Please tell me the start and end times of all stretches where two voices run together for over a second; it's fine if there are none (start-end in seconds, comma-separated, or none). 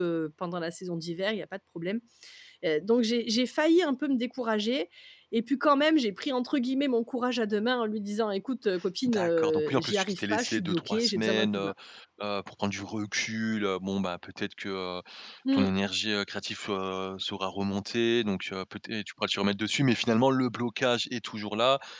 9.1-11.7